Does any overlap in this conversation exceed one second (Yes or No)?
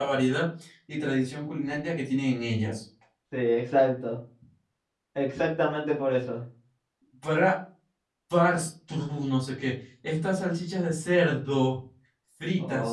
No